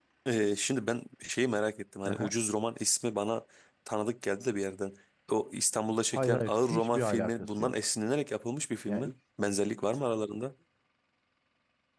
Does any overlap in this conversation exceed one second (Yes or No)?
Yes